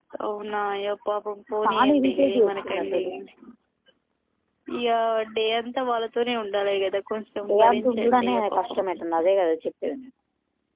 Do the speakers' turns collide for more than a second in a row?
Yes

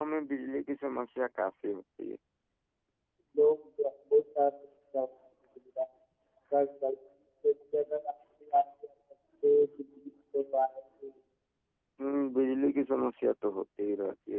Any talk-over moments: No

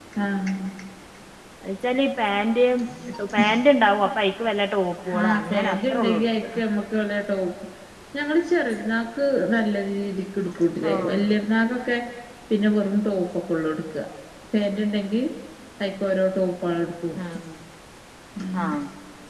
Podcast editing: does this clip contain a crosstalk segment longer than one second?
Yes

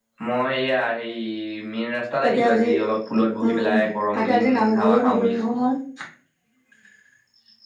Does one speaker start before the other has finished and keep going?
Yes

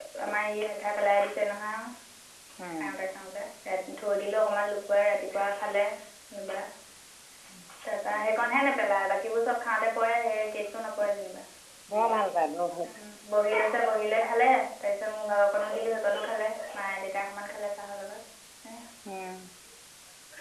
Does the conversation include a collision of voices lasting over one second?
No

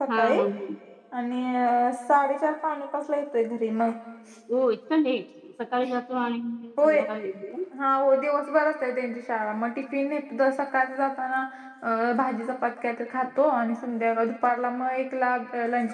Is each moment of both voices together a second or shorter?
Yes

